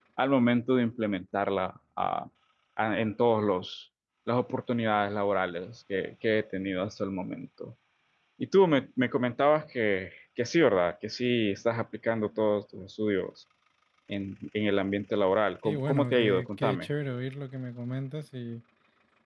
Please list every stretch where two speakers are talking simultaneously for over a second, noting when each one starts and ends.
15.6-16.9

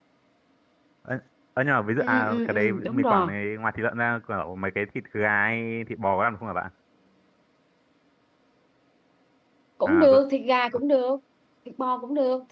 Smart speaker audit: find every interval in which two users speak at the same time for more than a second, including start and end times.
2.0-3.3

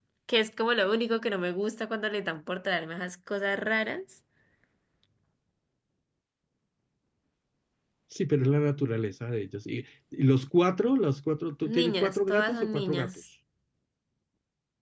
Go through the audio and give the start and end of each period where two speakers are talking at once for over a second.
11.6-13.1

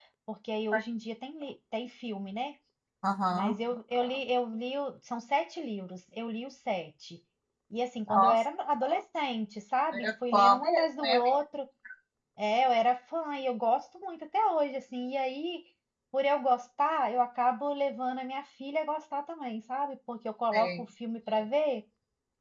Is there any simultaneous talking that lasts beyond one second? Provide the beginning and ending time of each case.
9.9-11.2

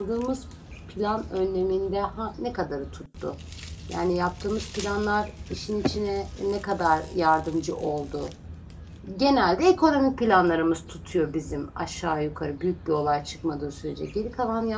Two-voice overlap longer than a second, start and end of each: none

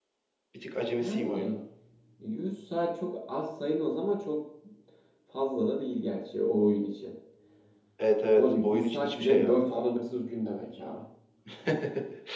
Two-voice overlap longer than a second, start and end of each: 8.3-9.6

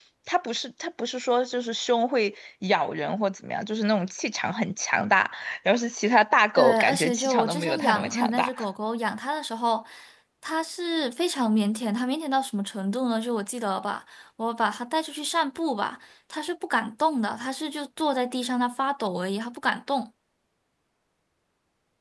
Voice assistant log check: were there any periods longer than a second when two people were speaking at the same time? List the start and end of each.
6.6-8.5

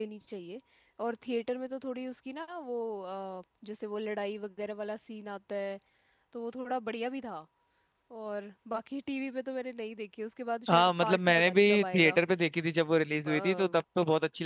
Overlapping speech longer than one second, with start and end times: 10.7-12.2

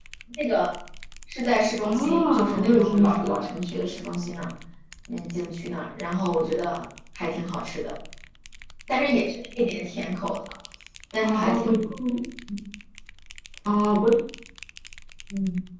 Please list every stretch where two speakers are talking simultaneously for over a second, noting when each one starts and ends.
1.9-3.4

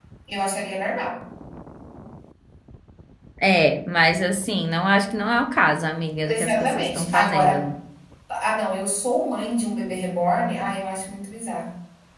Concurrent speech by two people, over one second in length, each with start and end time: 6.2-7.7

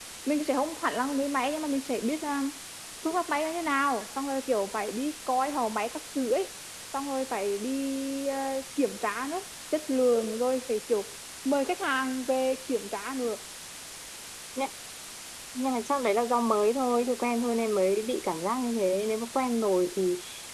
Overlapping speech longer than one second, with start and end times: none

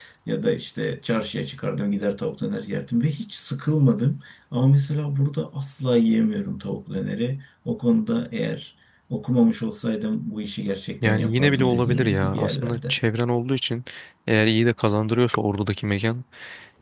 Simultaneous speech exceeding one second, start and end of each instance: 11.0-13.0

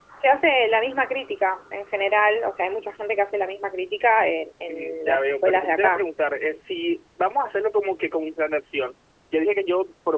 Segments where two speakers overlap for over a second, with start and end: 4.7-6.0

